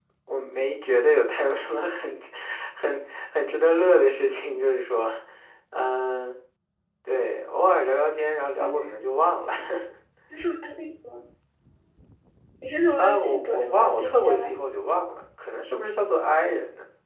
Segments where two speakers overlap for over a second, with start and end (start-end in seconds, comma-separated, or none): 13.0-14.5